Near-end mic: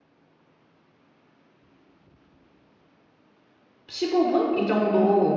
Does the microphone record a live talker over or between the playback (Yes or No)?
Yes